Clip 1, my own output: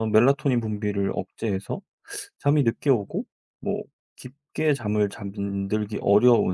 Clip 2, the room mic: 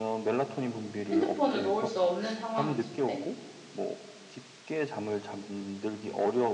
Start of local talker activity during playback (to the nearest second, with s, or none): 1 s